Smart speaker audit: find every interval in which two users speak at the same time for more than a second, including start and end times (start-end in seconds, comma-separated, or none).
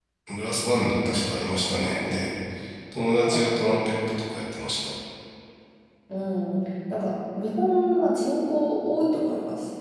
none